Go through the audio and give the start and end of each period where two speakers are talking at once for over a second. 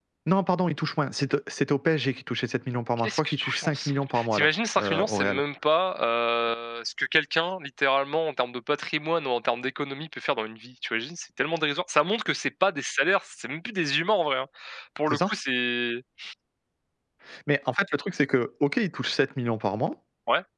3.0-5.4

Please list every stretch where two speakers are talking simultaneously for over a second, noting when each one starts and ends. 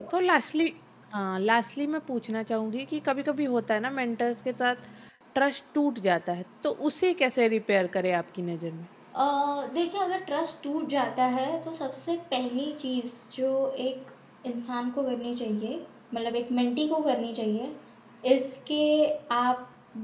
none

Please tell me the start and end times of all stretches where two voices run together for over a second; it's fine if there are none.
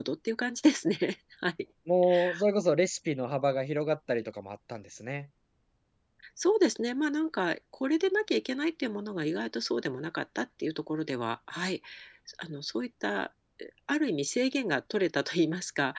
none

